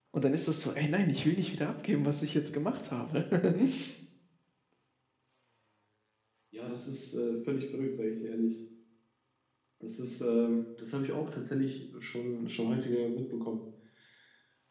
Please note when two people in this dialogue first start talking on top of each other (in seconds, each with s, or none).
none